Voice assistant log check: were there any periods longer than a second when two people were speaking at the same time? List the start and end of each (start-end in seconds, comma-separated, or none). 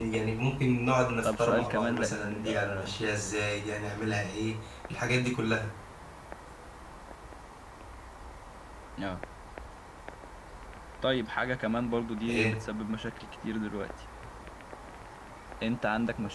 1.2-2.9